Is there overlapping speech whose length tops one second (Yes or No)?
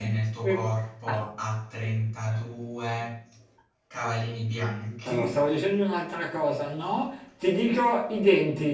No